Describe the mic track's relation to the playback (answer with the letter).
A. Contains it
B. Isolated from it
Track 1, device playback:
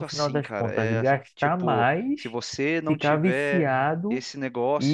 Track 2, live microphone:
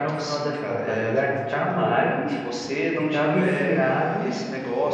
A